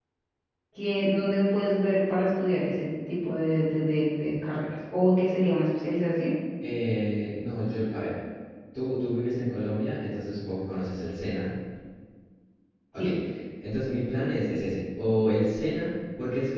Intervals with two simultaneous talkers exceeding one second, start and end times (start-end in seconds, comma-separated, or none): none